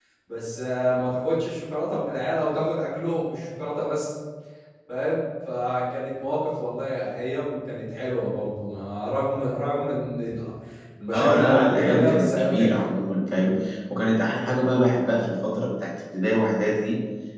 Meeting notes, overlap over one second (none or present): present